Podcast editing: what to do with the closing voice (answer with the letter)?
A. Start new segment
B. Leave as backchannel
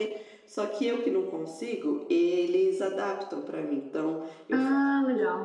B